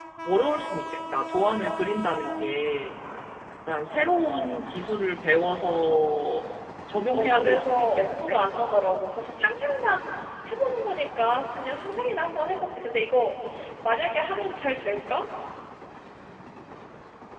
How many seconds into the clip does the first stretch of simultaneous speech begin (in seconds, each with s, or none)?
7.1 s